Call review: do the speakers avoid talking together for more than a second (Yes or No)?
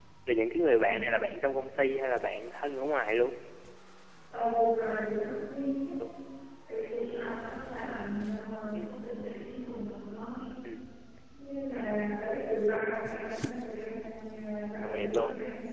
Yes